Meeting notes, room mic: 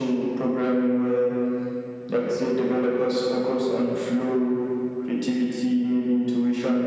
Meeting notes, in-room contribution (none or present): none